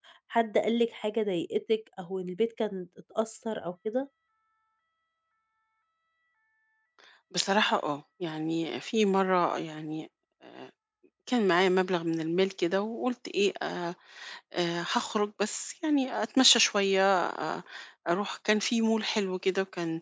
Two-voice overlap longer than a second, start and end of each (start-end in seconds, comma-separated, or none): none